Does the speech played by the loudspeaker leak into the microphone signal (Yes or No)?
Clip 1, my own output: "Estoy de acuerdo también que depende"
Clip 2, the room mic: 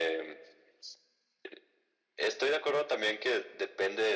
Yes